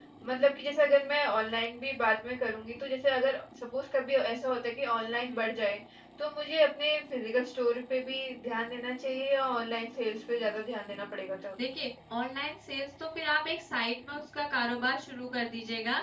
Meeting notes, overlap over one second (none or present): none